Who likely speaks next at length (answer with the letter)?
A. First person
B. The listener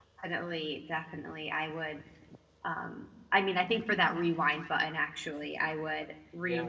A